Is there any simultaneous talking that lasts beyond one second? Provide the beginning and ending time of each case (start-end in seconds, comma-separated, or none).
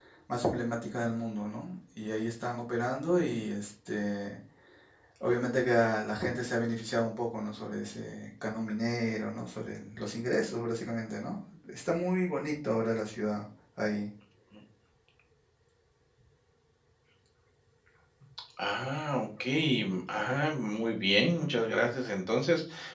none